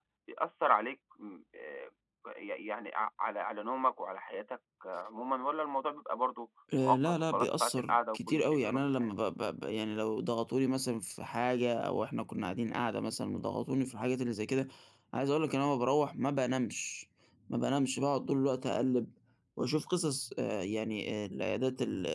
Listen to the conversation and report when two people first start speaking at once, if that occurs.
7 s

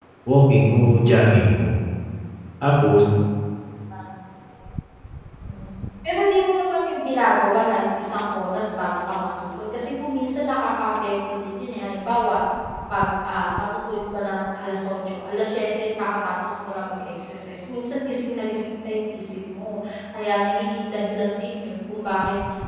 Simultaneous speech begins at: none

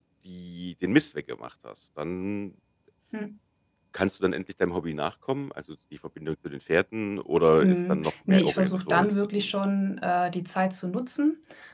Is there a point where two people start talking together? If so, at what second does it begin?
8 s

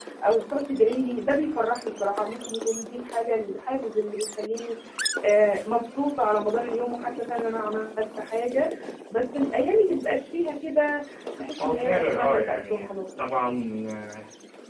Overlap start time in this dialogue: 12 s

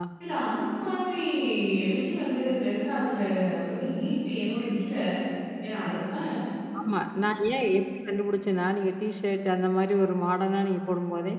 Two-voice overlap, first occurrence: none

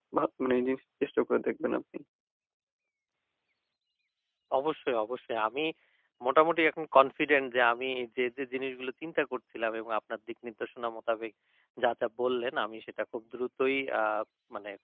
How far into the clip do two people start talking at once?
none

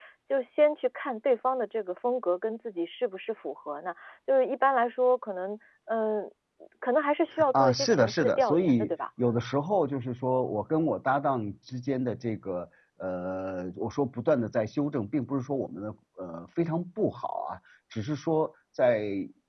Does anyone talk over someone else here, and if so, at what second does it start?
8 s

